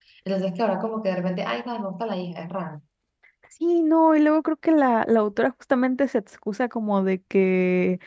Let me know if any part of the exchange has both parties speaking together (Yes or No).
No